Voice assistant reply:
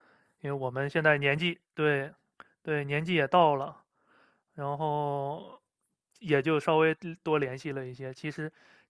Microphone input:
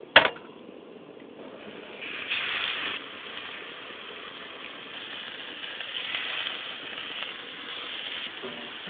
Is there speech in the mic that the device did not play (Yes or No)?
No